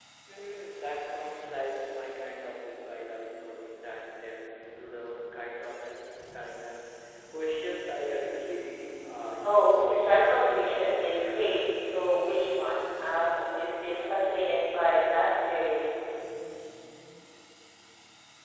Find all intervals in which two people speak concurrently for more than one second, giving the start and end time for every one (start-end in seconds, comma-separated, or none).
9.4-11.8